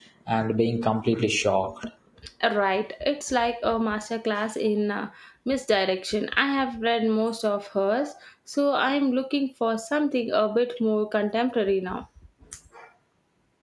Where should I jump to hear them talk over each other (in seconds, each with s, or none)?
none